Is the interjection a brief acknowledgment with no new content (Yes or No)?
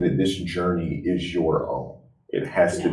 Yes